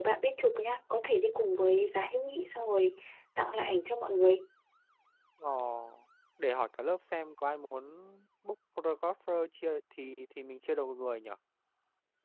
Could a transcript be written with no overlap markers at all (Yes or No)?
Yes